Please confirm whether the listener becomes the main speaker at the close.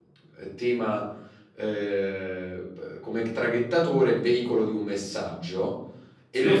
No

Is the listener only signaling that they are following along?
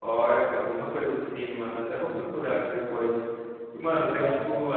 Yes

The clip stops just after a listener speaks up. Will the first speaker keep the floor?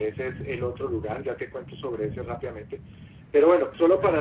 Yes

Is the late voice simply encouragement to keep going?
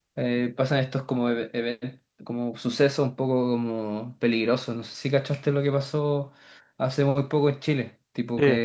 Yes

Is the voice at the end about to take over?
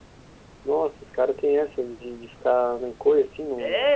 Yes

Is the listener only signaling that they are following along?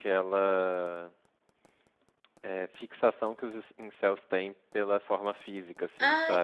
No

